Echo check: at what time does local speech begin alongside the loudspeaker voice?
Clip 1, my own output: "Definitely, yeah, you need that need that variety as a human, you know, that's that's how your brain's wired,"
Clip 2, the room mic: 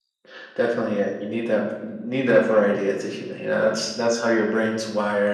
none

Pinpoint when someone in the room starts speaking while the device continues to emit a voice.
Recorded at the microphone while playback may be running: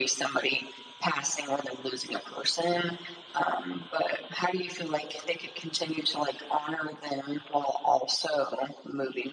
none

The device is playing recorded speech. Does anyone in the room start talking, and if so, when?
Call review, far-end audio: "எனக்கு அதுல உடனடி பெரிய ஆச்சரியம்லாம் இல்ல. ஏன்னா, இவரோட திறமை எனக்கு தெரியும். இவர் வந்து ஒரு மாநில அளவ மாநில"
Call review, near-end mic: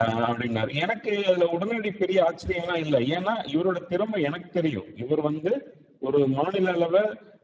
none

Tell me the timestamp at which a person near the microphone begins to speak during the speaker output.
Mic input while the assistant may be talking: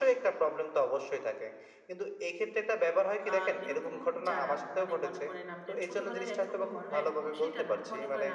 3 s

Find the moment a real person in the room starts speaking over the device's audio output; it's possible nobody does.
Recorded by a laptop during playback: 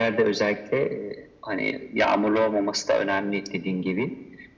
none

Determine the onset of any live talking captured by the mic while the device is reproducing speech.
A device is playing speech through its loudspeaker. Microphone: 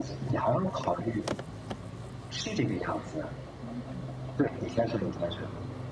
none

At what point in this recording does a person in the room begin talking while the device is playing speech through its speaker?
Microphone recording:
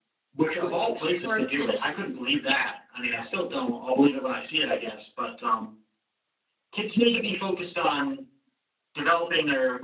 1 s

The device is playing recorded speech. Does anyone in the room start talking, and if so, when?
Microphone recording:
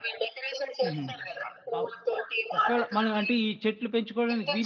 1 s

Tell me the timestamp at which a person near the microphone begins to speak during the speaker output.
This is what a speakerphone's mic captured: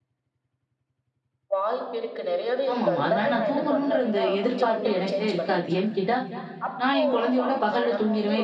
3 s

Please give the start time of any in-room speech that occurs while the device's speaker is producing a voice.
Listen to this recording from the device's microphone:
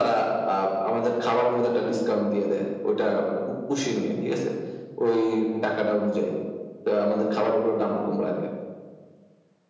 none

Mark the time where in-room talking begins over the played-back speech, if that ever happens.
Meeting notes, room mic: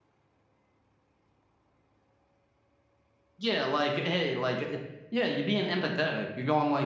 3 s

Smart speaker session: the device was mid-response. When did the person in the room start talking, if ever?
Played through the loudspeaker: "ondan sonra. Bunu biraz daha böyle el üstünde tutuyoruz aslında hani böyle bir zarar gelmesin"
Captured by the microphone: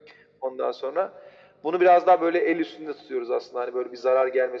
none

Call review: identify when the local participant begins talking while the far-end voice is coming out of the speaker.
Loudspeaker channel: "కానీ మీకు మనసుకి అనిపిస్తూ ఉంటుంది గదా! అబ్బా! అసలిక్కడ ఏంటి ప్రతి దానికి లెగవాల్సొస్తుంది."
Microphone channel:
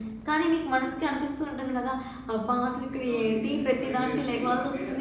3 s

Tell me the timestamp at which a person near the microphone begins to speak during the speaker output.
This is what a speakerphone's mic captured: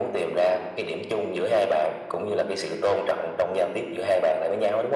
none

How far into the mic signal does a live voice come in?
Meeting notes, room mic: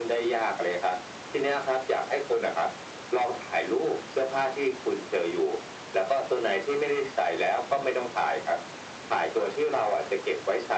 none

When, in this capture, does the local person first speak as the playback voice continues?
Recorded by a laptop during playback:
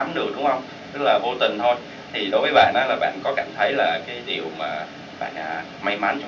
none

